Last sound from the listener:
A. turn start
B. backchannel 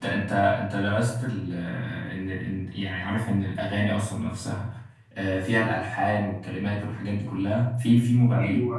A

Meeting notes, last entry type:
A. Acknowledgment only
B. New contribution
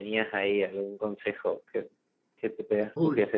B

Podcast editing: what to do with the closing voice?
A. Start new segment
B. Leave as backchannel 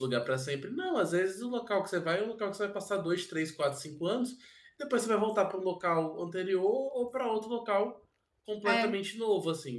B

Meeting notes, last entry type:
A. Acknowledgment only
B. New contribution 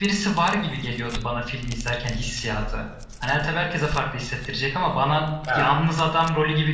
A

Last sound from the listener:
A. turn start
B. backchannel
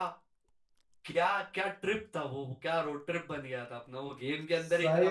A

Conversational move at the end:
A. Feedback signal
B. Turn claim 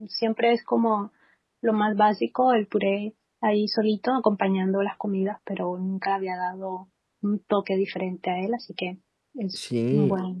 B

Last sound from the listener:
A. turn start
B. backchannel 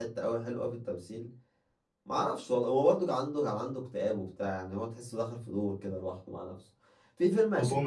B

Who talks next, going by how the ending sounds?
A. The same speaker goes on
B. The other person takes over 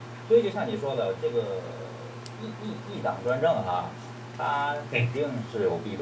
A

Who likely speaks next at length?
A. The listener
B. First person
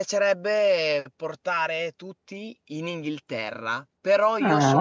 B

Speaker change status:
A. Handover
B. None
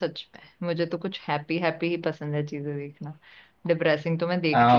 A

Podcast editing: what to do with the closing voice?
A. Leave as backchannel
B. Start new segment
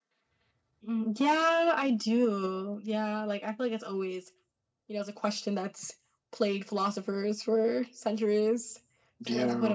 A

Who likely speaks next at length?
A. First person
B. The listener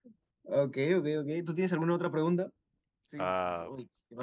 B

